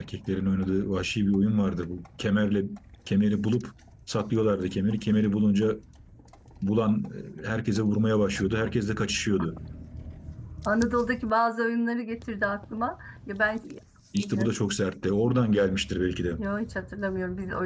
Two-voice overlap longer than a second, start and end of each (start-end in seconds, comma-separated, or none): none